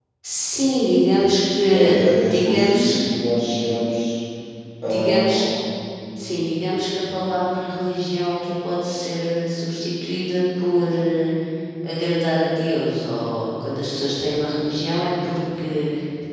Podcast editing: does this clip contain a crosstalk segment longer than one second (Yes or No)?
Yes